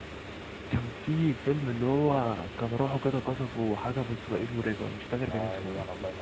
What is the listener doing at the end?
taking over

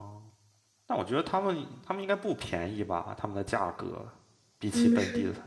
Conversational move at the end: taking over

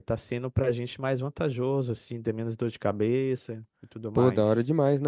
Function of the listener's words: taking over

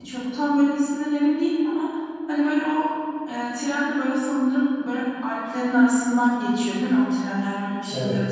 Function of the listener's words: taking over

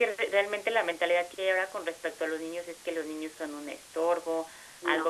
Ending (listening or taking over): listening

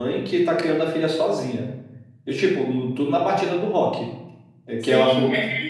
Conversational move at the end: taking over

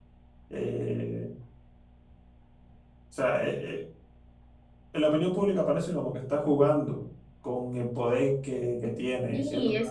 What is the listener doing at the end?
taking over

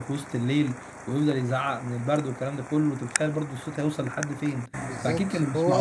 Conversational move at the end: taking over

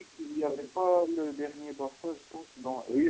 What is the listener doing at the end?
taking over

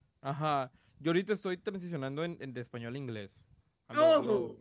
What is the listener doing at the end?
listening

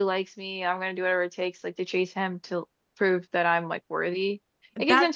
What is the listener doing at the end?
taking over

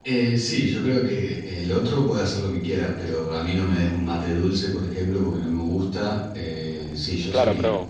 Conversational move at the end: taking over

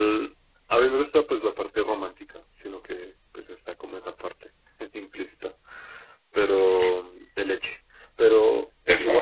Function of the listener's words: listening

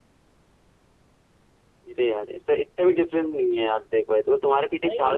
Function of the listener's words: listening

